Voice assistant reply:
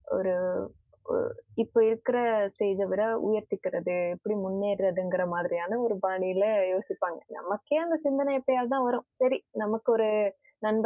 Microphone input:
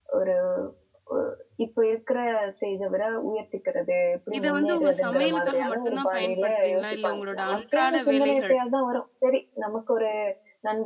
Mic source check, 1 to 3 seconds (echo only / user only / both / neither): echo only